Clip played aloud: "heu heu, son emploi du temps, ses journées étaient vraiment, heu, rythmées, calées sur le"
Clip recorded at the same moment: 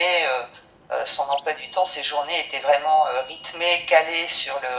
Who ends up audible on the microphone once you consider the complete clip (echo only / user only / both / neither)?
echo only